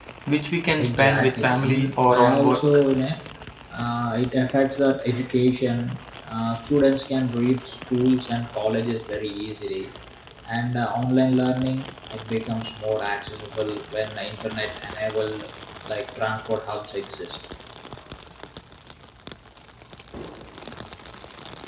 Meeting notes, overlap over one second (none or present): present